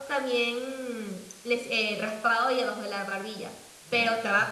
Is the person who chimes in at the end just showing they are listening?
Yes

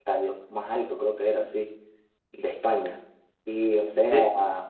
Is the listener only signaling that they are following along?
Yes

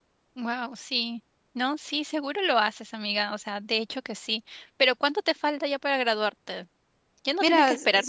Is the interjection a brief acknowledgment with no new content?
No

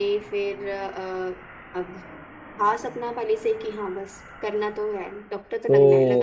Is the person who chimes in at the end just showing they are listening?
No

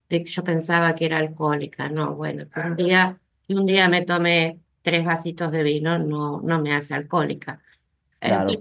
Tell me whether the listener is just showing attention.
Yes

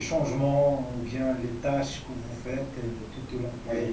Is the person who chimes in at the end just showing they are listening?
No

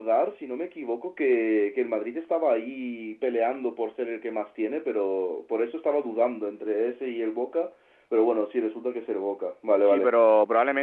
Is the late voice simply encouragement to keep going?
No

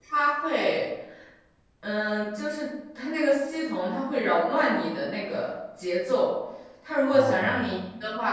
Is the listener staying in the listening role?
Yes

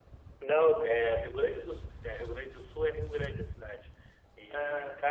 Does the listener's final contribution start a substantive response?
No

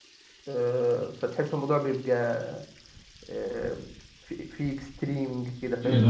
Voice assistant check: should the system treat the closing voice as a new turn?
Yes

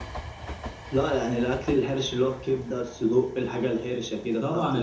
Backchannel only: No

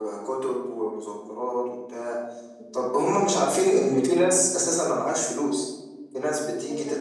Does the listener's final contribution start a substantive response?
No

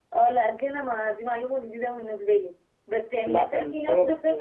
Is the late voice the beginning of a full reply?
No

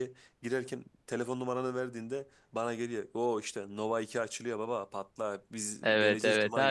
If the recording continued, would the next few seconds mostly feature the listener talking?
Yes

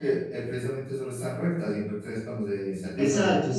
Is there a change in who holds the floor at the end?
Yes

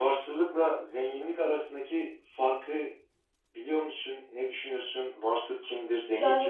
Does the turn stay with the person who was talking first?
No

